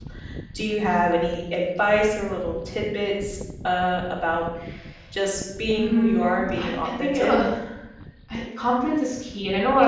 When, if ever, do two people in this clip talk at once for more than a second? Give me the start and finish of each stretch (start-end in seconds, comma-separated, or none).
5.8-7.3